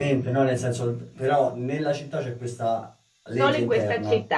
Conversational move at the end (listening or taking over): taking over